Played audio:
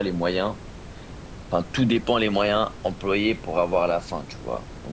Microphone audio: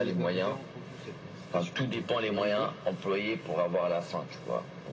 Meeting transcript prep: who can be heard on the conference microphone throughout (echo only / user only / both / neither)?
both